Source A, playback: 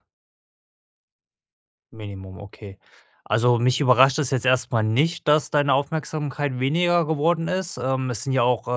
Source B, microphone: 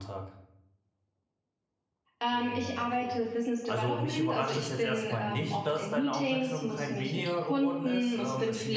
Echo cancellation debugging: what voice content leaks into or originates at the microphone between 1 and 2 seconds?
neither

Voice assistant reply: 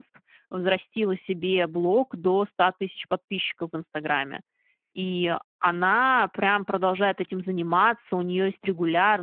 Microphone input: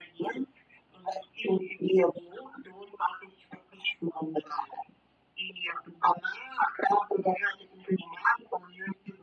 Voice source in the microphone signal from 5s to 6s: echo only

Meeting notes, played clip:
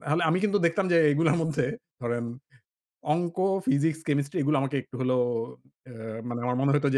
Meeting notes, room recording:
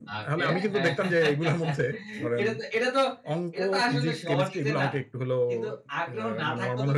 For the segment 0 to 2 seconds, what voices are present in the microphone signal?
both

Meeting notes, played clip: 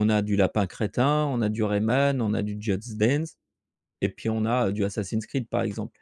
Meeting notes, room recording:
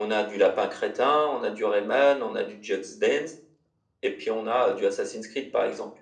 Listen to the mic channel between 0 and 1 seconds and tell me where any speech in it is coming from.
echo only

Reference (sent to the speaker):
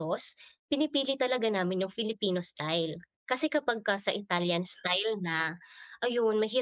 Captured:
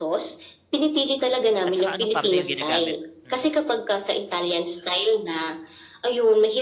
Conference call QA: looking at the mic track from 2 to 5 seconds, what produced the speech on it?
both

